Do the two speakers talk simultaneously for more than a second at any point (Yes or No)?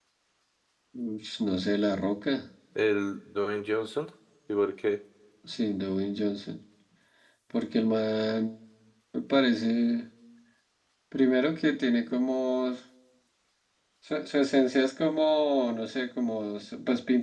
No